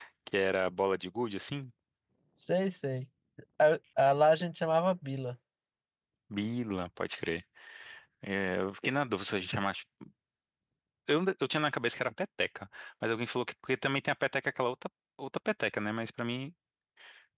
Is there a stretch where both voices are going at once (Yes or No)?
No